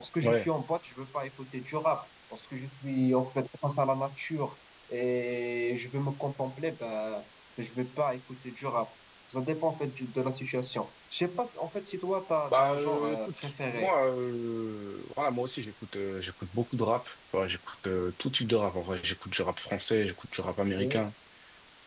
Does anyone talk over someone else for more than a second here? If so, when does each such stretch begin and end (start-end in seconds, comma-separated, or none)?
12.5-13.9